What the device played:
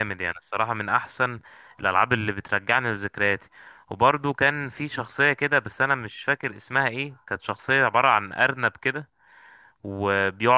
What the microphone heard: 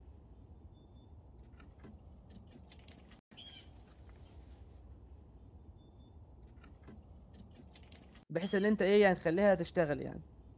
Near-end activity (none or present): present